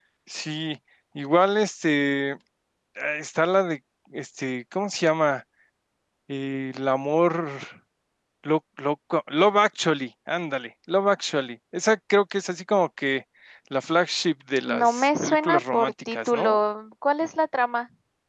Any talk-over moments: Yes, from 14.7 s

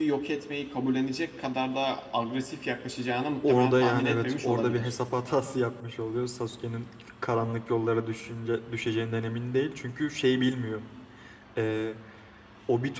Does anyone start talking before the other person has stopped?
Yes, from 3.4 s

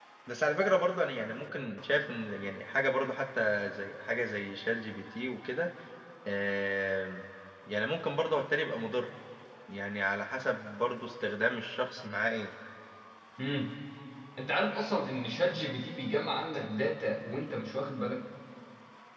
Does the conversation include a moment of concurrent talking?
No

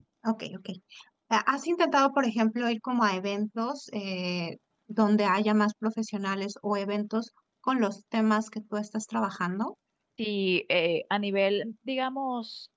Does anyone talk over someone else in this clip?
No

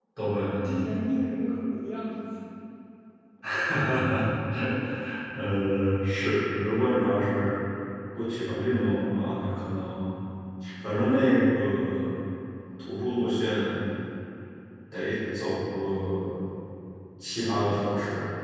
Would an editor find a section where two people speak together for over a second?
No

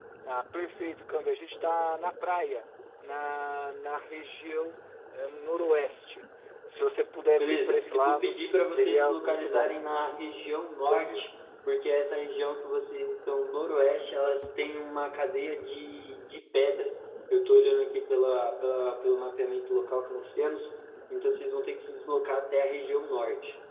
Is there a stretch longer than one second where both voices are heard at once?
Yes, from 7.4 s

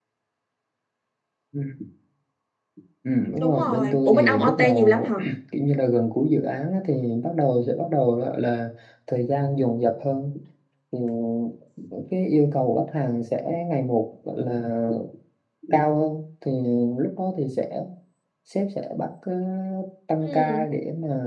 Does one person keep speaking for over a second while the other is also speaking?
Yes, from 3.4 s

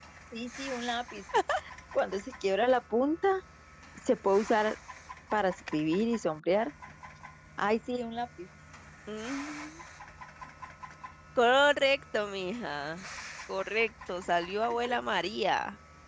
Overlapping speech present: No

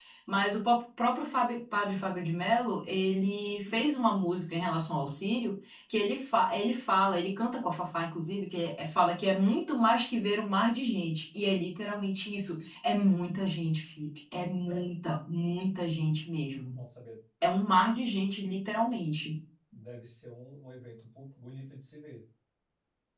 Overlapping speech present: No

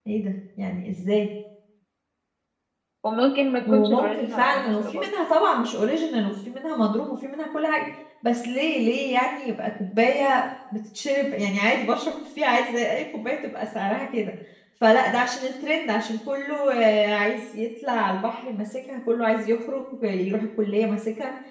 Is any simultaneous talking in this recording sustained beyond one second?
Yes, from 3.7 s

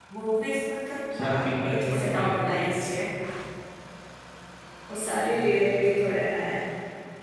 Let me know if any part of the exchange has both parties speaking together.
Yes, from 1.2 s

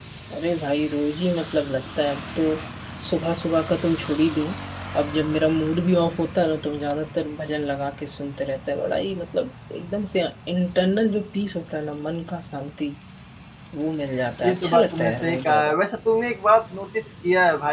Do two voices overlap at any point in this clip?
Yes, from 14.4 s

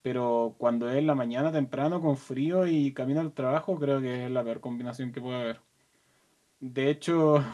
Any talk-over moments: No

